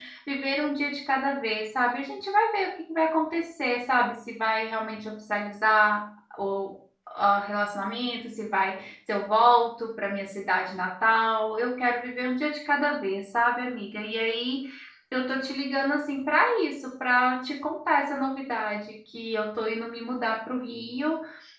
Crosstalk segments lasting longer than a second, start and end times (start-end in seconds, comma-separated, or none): none